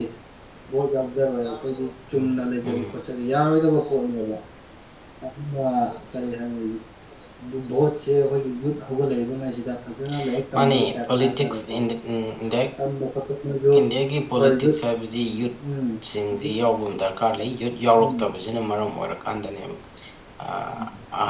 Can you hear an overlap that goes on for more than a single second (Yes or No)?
Yes